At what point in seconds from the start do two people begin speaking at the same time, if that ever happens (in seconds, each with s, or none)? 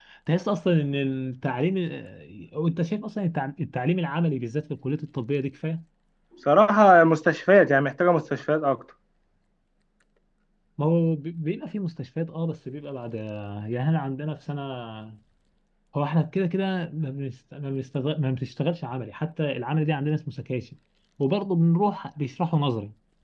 none